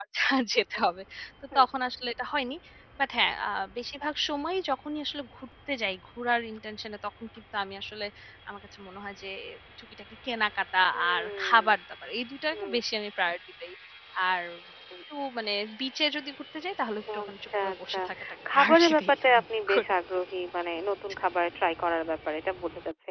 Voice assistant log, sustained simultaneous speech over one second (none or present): present